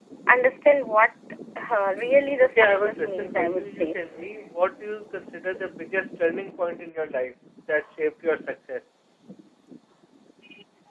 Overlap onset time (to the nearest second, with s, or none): 2 s